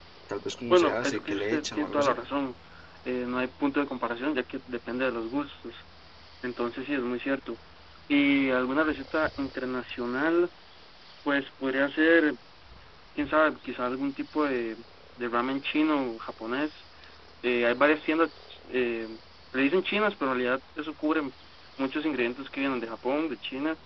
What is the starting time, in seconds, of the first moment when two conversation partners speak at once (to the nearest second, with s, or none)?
1 s